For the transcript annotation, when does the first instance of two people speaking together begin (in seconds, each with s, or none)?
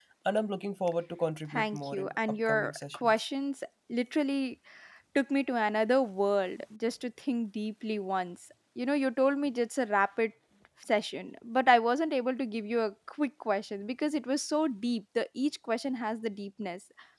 1.5 s